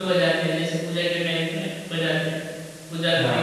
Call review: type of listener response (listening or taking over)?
taking over